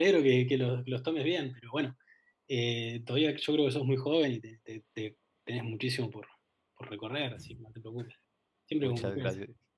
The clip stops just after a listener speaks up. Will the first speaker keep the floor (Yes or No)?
No